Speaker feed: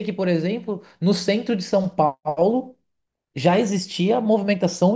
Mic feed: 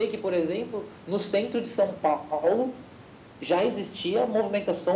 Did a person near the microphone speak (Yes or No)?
No